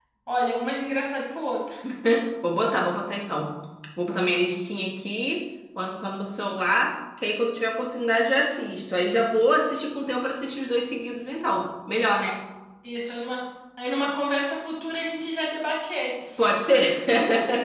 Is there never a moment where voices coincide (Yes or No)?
Yes